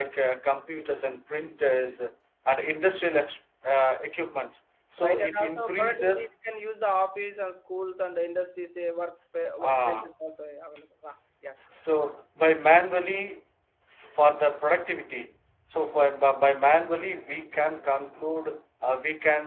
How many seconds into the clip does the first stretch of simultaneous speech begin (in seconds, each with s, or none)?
5.0 s